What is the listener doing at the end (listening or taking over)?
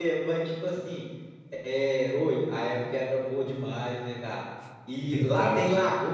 listening